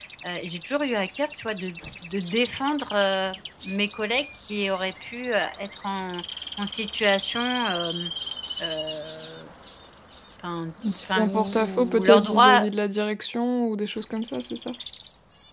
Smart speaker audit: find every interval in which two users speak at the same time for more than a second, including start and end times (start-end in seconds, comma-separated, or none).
10.8-12.7